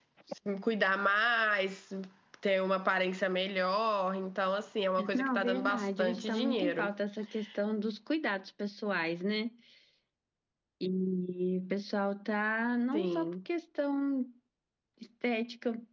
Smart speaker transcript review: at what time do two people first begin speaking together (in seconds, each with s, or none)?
5.1 s